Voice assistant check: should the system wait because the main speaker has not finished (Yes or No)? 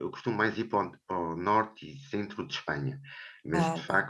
Yes